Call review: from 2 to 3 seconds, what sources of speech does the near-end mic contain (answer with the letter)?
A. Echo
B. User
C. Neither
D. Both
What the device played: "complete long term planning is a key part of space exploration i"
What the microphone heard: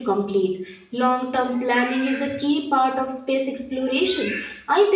A